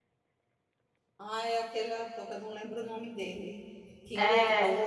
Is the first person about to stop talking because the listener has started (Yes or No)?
No